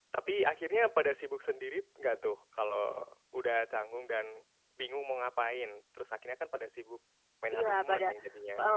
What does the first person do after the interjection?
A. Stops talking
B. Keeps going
A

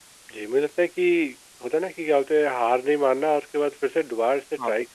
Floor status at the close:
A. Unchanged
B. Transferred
A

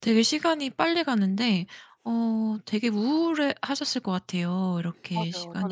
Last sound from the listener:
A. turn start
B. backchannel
A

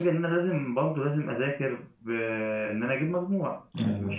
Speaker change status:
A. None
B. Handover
A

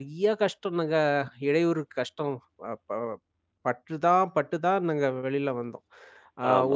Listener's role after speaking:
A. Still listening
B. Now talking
B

